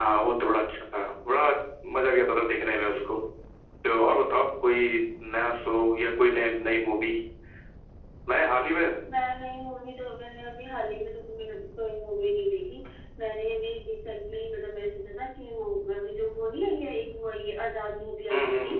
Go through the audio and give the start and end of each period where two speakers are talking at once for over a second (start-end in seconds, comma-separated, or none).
none